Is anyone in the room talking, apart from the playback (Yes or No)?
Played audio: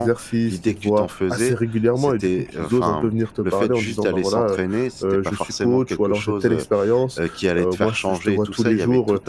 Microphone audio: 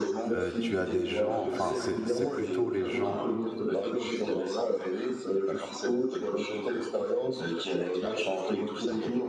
Yes